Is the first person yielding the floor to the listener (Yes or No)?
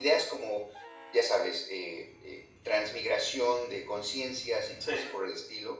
No